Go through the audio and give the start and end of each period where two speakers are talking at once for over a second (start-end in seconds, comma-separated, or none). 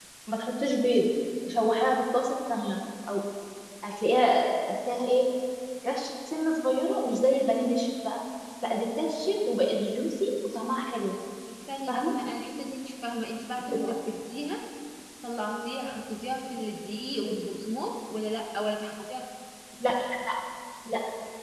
none